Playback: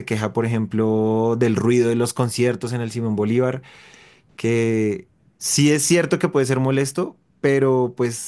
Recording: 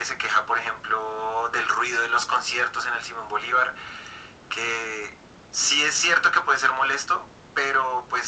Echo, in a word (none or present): present